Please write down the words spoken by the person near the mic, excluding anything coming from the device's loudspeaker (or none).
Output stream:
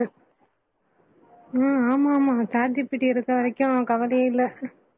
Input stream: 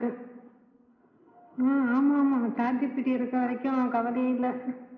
none